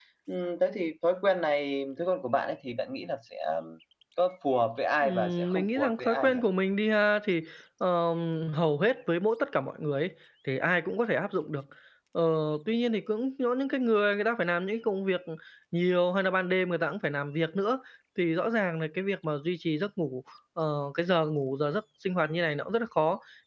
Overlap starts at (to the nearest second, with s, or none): 5 s